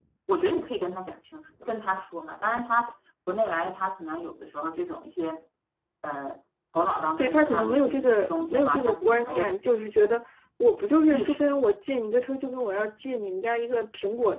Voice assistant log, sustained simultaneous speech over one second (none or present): present